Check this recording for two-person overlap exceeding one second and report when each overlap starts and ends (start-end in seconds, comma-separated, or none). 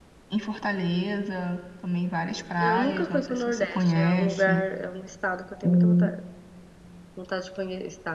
2.6-4.6